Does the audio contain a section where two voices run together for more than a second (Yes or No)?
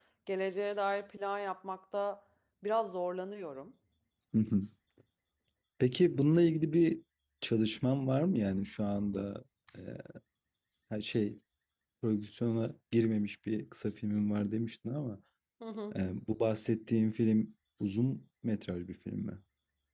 No